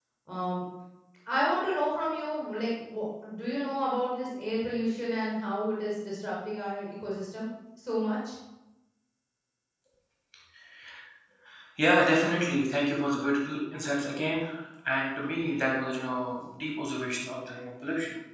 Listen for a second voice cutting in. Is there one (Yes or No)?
No